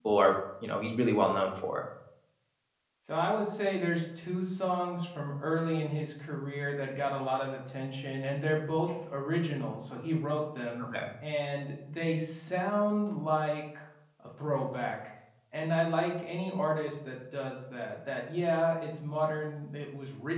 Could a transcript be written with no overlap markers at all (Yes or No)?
Yes